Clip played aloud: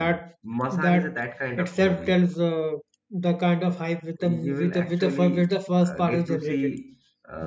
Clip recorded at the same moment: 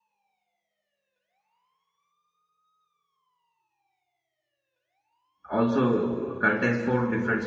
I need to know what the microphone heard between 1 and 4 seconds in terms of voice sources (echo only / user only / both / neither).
neither